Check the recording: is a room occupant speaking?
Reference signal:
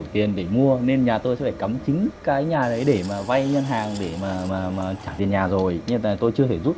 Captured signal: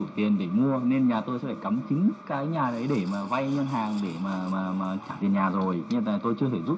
No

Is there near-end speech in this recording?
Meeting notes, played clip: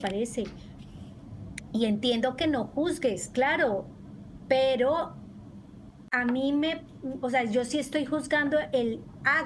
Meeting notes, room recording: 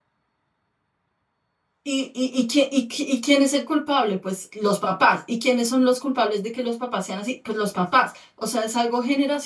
Yes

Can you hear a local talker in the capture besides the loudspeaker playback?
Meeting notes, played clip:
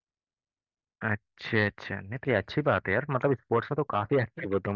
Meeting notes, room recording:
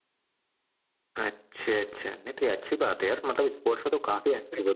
No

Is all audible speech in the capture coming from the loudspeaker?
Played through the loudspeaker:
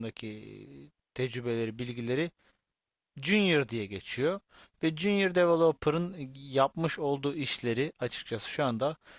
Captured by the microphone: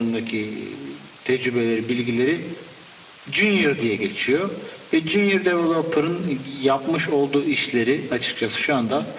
Yes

